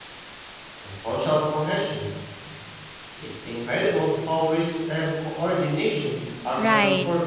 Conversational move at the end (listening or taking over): taking over